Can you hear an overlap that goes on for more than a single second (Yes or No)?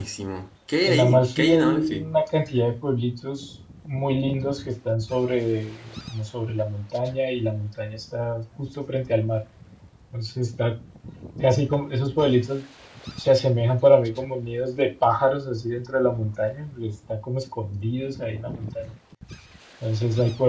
Yes